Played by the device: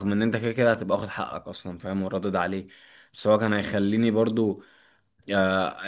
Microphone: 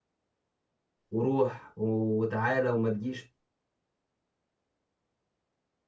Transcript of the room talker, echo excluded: وروح و- وتعالى وما تجيش

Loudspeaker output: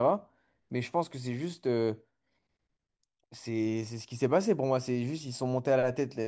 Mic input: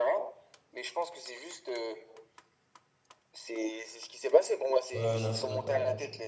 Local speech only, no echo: Ouais, ouais, non, c'est vrai, t'as raison.

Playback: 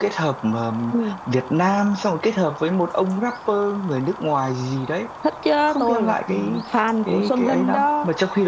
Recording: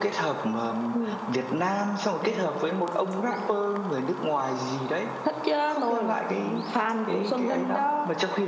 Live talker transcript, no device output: Ừ. Nè,

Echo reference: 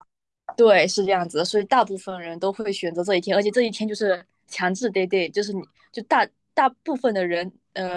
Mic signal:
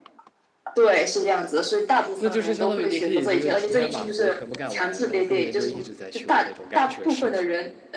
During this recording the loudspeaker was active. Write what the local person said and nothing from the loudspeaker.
那就是相当于你可以就是提前把活全部干完，然后后面就一直在休那种感觉是吗？

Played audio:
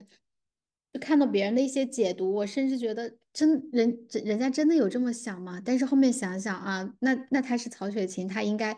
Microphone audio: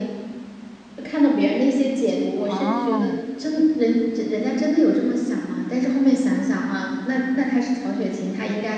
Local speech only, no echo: 哦

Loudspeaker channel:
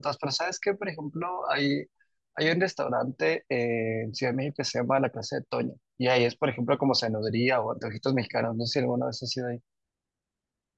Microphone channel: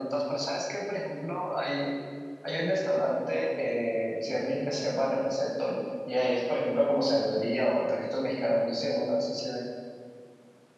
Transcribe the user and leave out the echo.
none

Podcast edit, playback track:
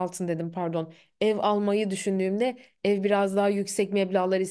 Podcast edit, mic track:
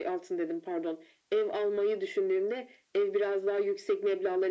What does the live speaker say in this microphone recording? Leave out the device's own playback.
none

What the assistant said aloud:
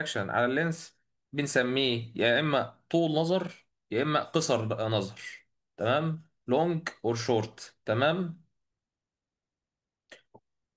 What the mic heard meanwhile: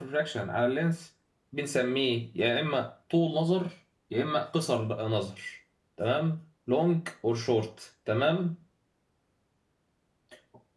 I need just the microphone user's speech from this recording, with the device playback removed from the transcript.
none

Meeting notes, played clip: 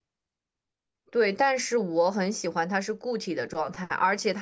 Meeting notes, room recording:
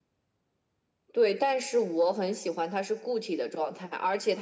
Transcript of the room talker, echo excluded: none

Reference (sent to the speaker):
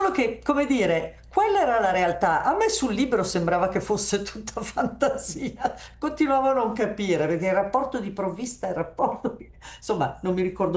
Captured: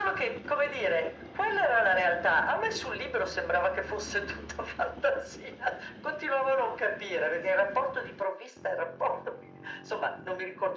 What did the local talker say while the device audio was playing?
none

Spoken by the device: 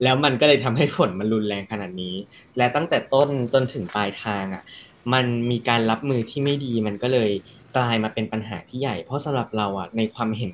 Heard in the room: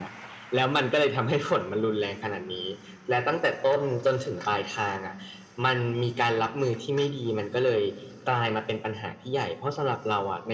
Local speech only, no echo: none

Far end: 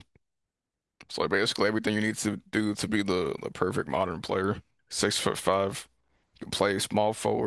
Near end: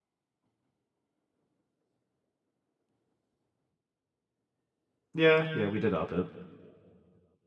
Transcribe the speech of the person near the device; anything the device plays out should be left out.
Yeah, yeah, we did up it.

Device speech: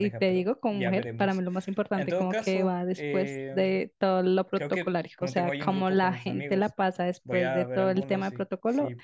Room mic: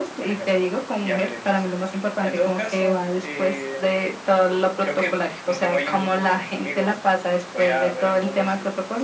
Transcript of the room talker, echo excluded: none

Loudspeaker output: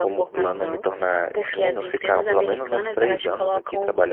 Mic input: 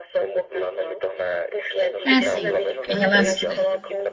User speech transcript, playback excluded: É assim, relaço-

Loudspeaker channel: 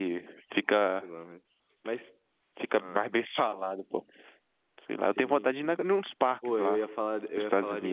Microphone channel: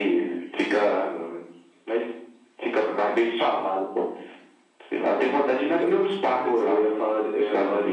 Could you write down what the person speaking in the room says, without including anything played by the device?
por incrível que pareça,

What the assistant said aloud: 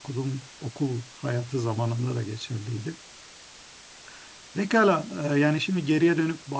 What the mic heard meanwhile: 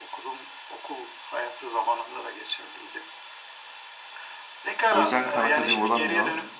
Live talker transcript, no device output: O yüzden Khan Akademi olamıyor.

